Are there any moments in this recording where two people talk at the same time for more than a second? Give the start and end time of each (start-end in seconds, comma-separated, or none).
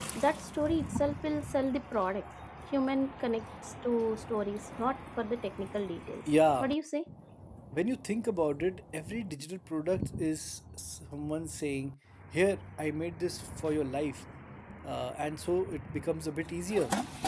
none